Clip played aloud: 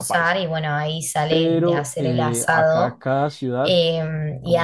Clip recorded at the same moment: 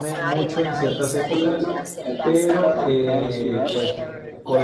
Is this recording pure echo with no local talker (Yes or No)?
No